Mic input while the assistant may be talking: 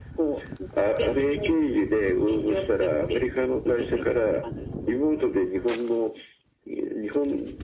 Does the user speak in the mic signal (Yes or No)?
No